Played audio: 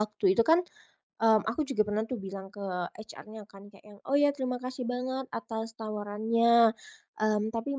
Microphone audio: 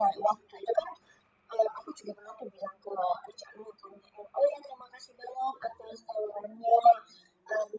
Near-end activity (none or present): none